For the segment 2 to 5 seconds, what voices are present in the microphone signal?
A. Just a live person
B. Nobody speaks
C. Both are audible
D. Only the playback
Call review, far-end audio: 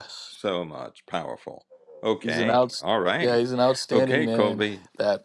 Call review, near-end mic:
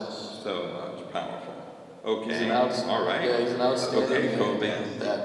C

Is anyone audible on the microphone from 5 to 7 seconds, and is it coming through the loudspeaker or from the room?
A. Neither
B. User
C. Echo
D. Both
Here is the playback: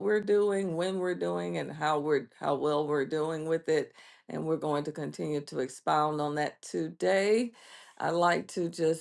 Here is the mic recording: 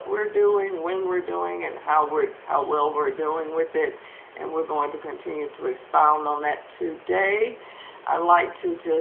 C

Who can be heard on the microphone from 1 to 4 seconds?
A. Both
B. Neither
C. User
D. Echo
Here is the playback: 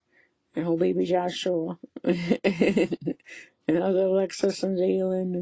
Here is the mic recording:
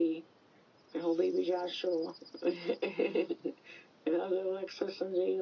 D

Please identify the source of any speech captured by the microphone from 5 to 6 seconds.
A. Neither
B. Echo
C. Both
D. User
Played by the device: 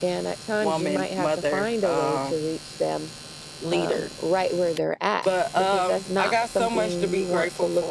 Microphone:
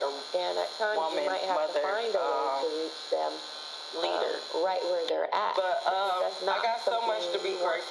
B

